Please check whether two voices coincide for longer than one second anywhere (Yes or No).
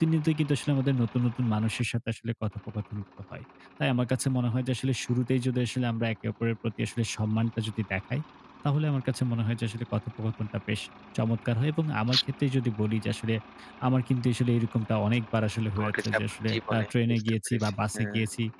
Yes